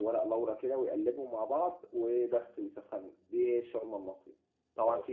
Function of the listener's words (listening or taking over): listening